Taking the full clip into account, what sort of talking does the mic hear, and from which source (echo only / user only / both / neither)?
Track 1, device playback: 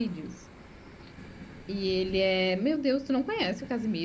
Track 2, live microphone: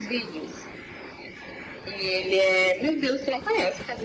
echo only